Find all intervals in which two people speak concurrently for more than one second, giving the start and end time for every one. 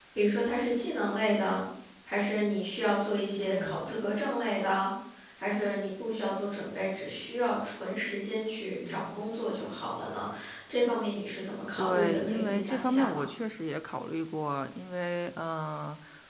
11.8-13.2

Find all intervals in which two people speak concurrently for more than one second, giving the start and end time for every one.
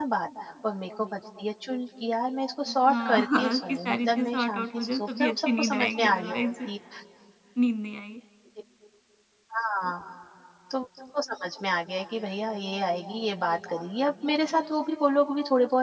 2.7-6.5

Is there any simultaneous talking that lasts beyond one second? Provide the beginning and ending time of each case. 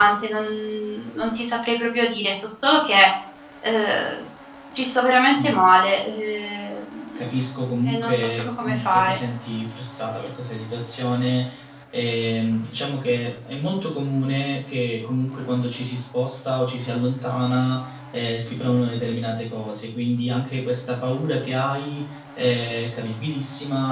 7.9-9.2

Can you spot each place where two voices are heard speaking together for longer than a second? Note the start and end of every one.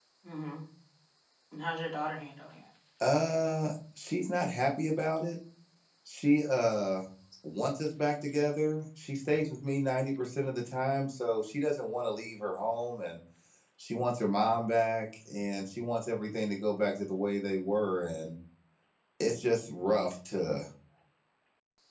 none

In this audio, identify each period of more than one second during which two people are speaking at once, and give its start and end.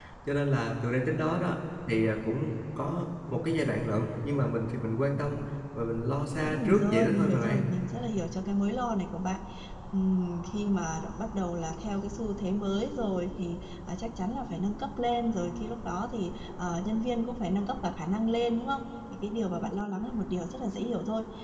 6.3-7.6

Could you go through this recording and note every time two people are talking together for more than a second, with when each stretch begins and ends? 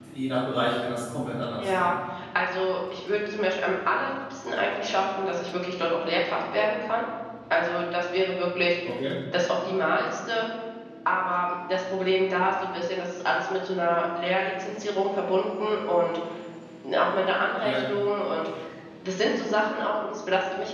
none

